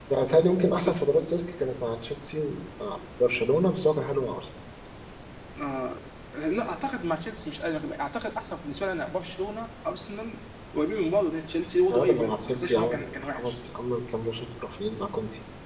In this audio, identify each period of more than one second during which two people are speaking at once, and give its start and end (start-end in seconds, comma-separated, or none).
11.9-13.5